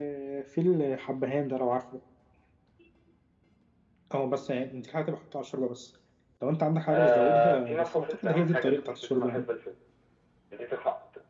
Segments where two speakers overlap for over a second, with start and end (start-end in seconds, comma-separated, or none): 6.9-9.4